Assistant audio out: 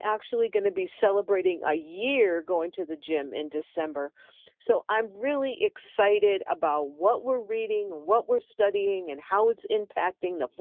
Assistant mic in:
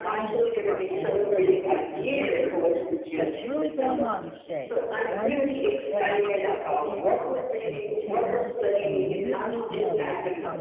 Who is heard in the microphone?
both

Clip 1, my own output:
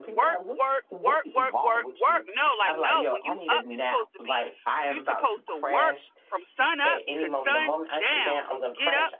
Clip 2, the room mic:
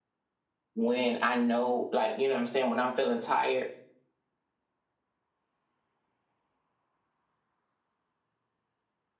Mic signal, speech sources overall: user only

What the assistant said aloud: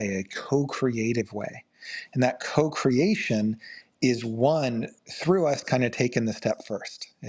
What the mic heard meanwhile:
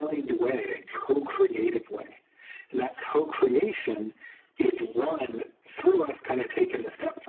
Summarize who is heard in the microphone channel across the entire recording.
echo only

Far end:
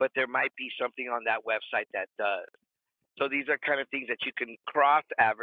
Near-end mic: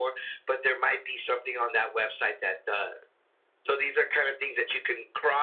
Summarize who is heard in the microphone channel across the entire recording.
echo only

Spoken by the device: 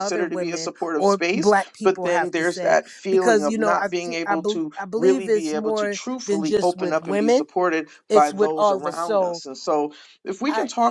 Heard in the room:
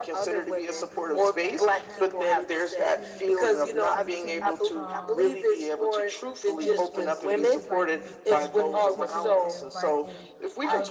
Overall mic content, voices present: both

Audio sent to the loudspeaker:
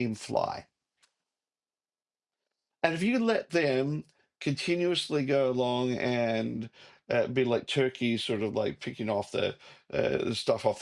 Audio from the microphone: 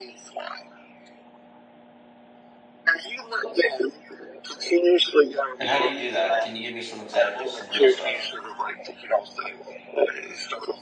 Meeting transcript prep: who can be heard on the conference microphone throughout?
both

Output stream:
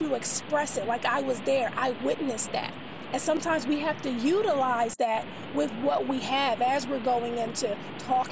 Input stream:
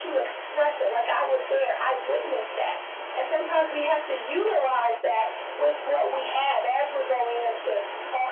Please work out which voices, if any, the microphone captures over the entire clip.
echo only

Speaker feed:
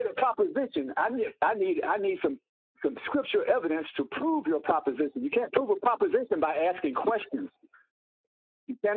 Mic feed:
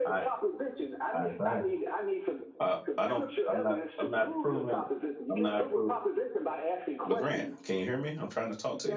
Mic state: both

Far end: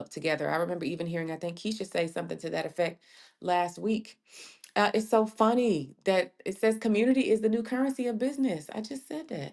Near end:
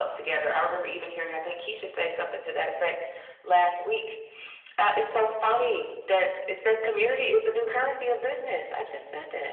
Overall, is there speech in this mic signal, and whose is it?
echo only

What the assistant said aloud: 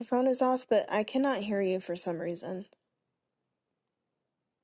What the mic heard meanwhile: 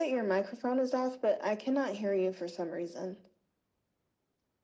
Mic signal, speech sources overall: echo only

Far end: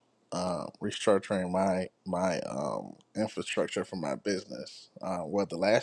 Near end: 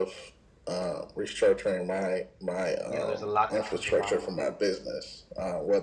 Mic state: both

